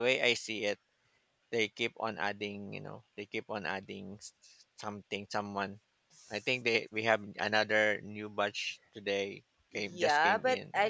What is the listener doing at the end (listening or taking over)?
taking over